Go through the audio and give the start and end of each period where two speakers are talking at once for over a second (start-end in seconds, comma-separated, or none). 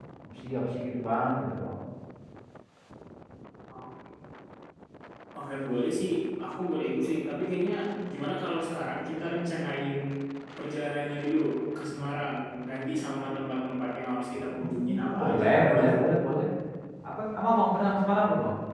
14.6-16.0